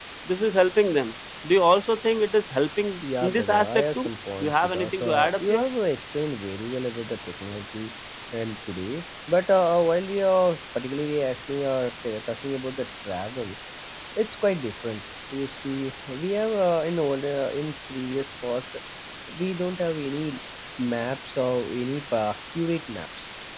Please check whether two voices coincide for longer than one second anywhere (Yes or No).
Yes